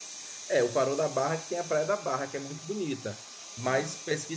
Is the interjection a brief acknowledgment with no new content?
Yes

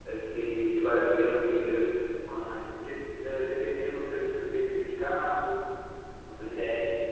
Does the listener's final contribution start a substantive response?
Yes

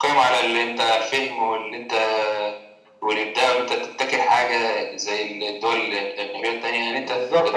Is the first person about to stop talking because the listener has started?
Yes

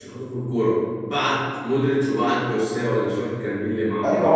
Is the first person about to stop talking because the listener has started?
Yes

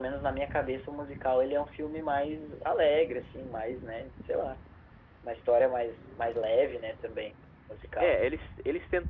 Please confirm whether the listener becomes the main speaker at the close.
Yes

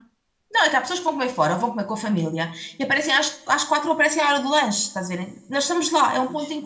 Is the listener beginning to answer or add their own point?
No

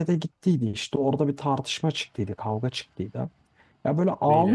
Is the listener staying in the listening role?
Yes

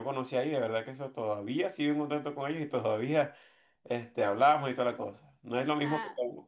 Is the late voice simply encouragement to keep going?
Yes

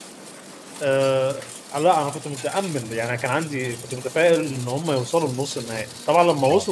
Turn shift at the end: No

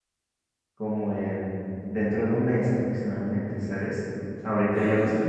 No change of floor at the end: Yes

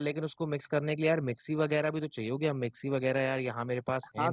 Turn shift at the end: Yes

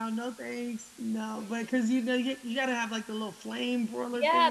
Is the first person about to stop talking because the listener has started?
Yes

